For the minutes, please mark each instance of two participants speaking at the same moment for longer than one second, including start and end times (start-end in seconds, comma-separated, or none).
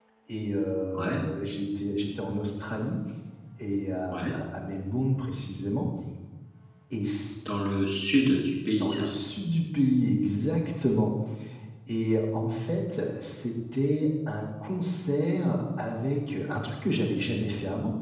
none